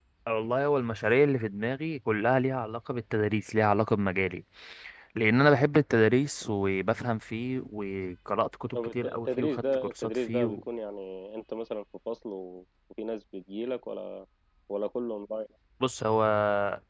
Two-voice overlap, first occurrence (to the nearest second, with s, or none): 9 s